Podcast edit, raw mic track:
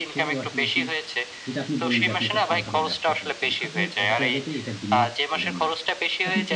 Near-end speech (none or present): present